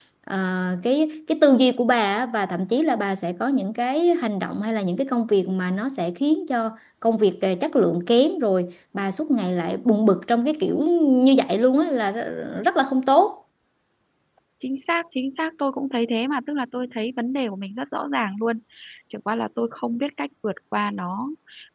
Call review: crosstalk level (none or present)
none